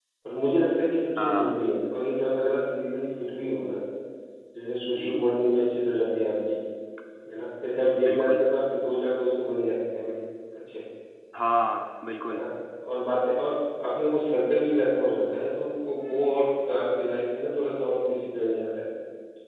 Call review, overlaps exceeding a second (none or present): none